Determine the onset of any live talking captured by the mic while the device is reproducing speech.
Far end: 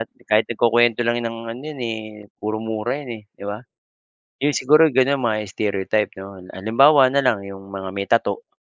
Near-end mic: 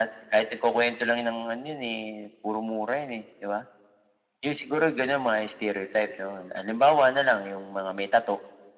none

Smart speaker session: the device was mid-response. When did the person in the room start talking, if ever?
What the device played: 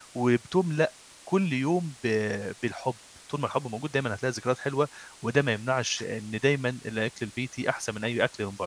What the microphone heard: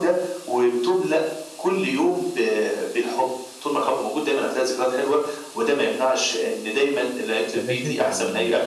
7.5 s

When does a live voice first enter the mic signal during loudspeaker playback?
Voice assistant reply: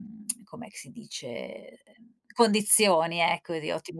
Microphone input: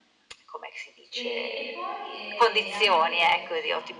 1.1 s

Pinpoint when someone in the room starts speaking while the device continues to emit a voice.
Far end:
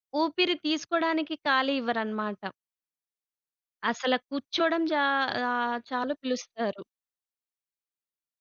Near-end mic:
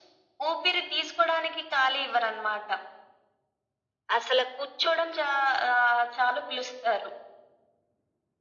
none

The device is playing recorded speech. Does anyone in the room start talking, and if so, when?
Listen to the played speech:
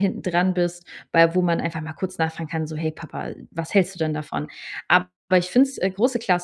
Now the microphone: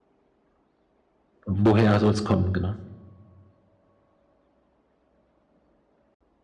1.4 s

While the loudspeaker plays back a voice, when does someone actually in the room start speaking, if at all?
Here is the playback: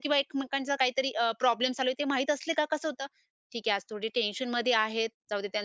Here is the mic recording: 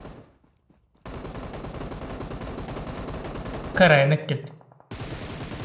3.8 s

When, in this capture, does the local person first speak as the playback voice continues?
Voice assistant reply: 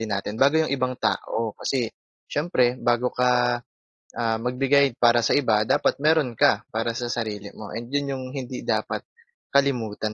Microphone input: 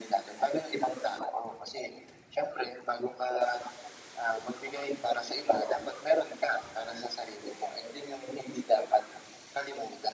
none

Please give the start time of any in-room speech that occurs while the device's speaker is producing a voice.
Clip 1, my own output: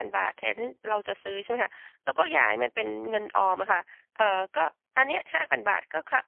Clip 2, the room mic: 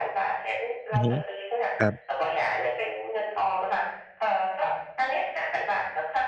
0.9 s

